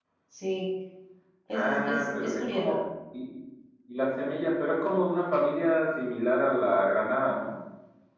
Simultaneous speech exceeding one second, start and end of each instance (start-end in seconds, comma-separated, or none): 1.6-2.8